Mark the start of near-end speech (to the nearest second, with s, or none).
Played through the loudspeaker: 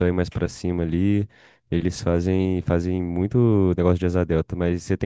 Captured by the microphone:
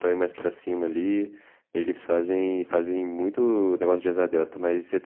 none